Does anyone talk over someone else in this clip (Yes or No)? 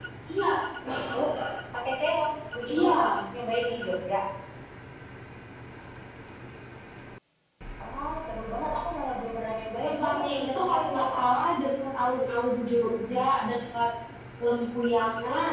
Yes